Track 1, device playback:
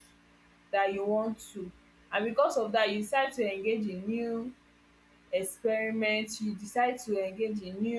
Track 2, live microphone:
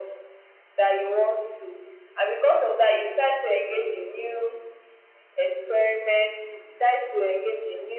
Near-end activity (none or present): none